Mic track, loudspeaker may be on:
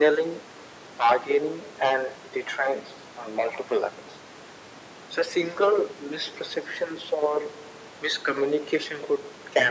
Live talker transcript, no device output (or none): none